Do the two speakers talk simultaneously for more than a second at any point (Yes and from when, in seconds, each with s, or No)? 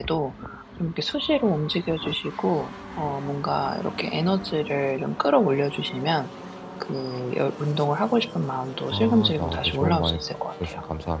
Yes, from 8.9 s